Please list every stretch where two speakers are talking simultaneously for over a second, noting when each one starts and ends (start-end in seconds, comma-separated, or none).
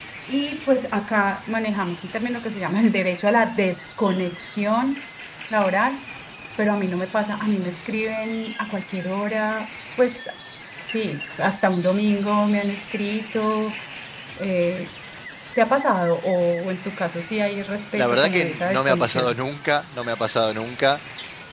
18.0-19.4